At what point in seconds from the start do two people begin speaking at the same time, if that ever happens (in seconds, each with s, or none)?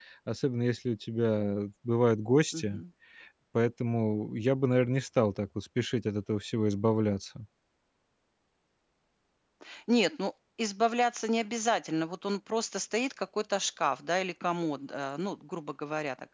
none